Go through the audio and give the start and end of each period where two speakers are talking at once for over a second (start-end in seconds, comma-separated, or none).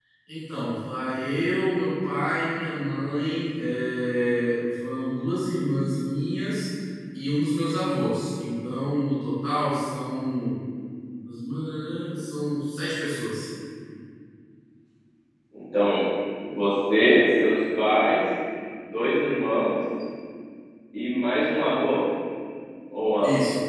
none